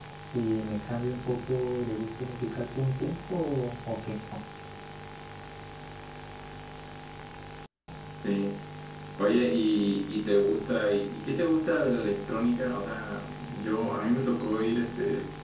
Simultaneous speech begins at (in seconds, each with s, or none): none